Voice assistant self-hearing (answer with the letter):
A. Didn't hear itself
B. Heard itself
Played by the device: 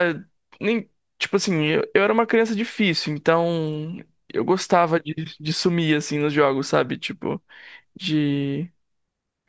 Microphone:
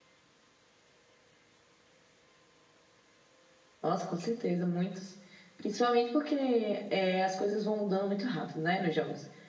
A